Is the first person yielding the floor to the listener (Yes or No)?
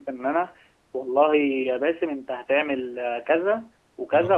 No